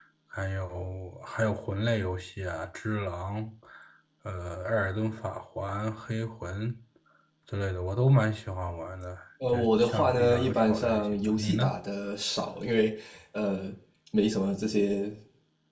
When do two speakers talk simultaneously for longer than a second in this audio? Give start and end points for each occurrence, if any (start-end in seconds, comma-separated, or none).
9.5-11.8